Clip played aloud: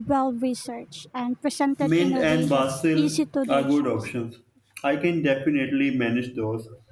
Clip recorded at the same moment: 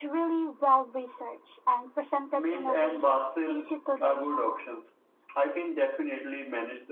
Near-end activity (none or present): none